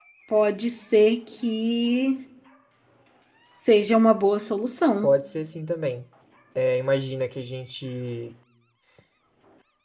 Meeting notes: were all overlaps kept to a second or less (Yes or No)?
Yes